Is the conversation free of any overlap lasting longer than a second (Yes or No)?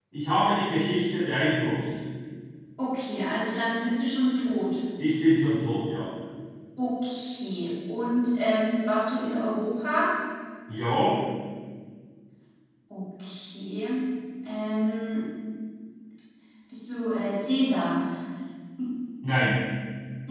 Yes